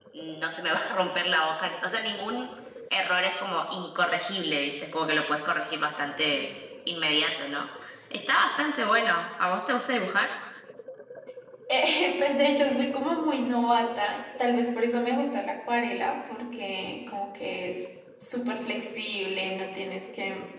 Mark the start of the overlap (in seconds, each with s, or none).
none